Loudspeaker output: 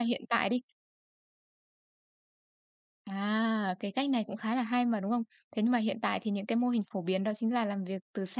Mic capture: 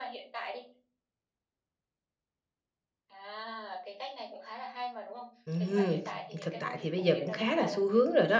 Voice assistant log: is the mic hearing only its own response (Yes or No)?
No